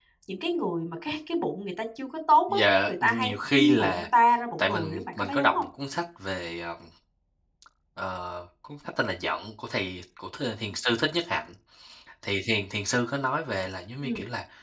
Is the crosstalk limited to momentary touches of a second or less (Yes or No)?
No